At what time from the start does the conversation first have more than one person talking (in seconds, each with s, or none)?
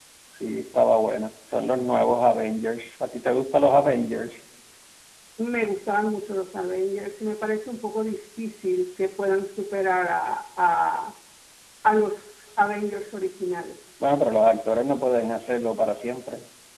none